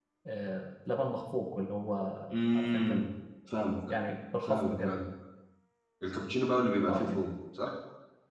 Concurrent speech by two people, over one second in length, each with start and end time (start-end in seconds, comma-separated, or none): none